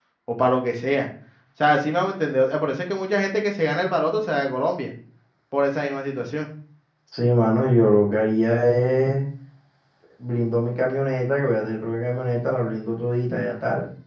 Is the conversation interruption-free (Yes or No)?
Yes